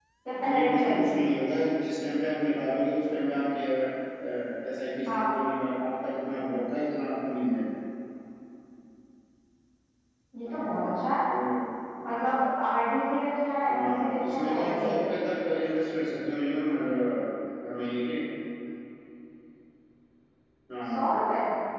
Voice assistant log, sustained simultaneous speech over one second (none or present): present